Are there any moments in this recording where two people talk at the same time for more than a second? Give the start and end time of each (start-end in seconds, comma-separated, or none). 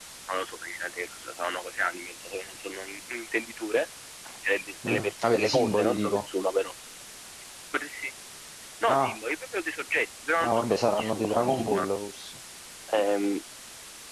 4.9-6.3, 10.4-11.9